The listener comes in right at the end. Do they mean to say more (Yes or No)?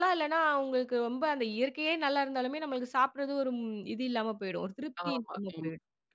Yes